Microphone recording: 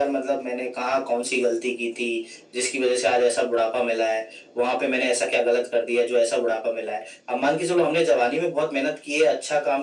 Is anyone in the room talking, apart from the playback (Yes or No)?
No